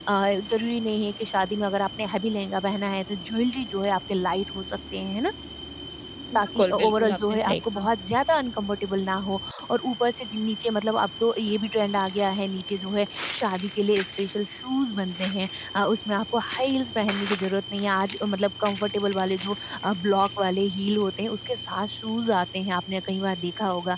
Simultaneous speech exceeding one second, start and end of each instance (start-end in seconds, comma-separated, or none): 6.3-7.9